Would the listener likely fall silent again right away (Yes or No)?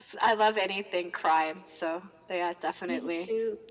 No